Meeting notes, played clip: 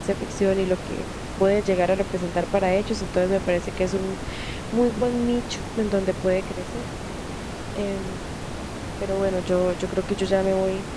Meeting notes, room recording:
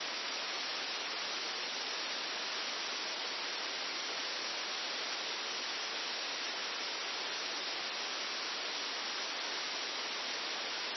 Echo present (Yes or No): No